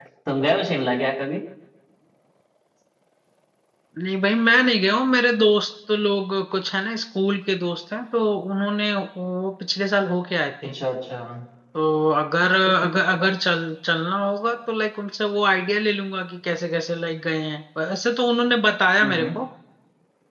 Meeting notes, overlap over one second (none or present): none